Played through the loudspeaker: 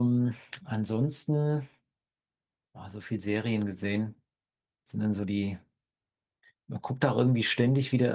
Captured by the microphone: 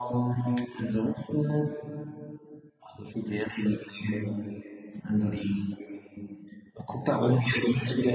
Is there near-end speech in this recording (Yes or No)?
No